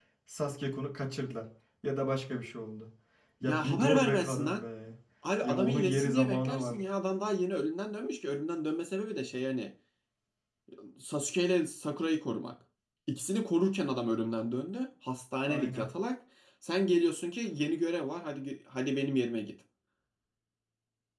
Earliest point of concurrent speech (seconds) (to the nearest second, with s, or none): 3 s